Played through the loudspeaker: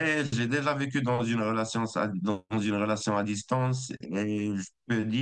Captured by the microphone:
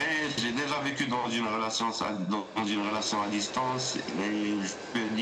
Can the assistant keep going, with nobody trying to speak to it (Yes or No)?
Yes